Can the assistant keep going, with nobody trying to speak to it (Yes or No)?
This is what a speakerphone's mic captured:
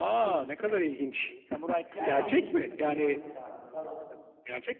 No